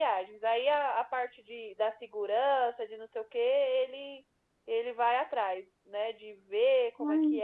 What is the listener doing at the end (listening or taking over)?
listening